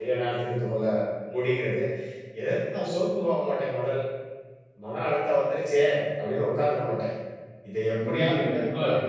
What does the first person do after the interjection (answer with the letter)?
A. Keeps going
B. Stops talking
B